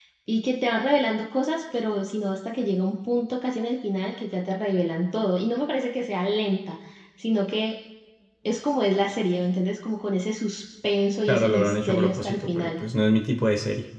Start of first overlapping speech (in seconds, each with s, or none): 11.3 s